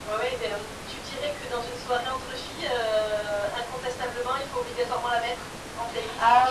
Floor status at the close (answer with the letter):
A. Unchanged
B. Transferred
B